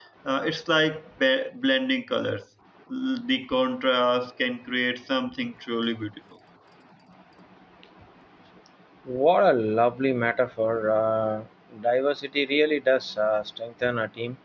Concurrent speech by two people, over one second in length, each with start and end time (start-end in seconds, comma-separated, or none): none